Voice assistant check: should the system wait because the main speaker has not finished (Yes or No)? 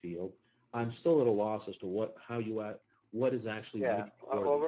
No